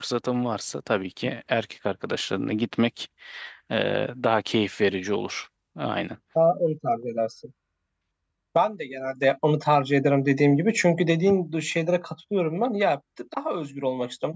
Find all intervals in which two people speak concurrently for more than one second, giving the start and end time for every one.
none

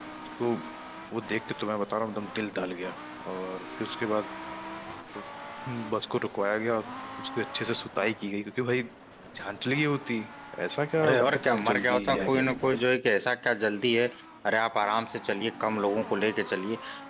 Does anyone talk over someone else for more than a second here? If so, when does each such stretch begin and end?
11.0-12.4

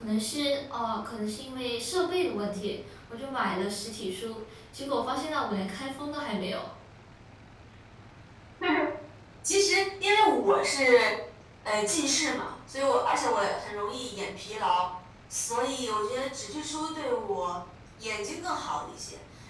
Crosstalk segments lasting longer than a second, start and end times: none

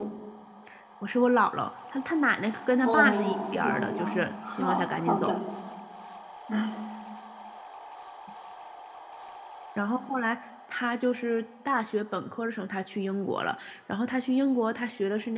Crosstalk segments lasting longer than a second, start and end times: 2.8-5.3

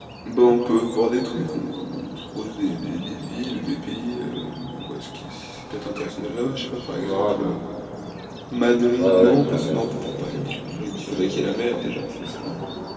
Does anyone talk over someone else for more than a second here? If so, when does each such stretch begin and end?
9.0-11.4

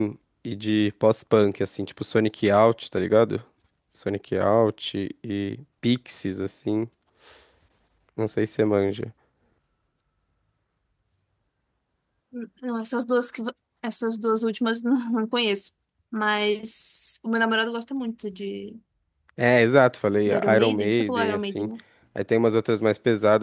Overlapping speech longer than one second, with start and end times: 20.3-21.7

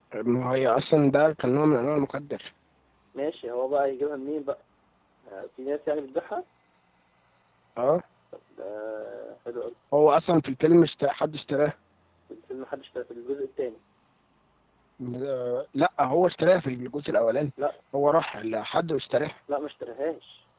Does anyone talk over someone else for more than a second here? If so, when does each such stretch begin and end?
none

